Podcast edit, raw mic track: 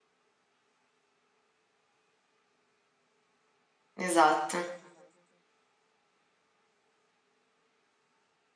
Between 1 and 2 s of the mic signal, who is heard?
neither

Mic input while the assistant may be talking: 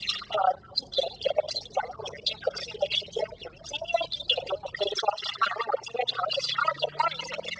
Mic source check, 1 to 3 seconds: echo only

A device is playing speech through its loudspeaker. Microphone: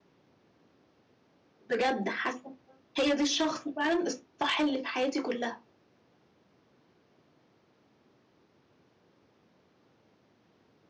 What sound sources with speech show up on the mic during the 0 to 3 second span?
user only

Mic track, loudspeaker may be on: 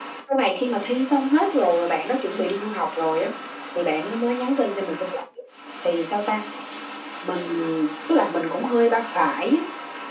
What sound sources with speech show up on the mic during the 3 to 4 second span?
echo only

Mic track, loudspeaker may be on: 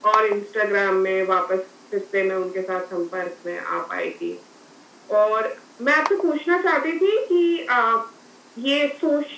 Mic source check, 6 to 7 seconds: echo only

